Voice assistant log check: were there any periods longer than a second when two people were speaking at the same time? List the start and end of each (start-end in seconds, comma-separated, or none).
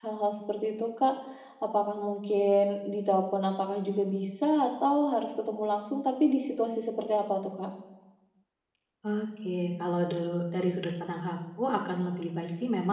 none